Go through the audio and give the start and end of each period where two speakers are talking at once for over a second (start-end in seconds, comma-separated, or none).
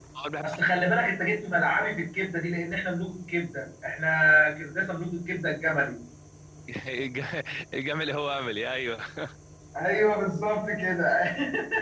none